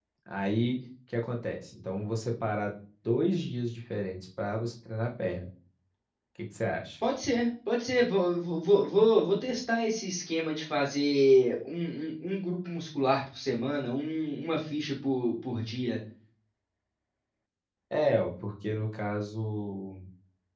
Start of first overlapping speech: none

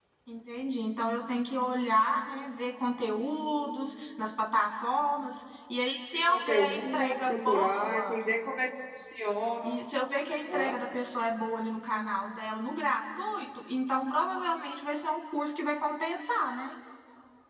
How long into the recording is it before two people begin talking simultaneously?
6 s

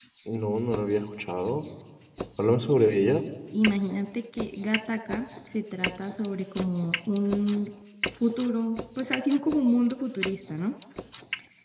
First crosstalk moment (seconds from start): none

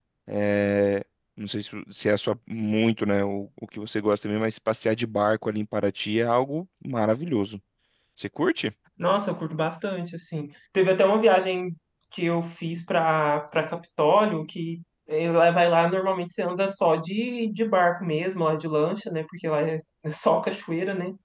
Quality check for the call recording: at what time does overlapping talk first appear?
none

